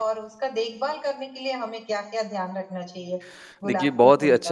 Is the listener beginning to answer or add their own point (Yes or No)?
Yes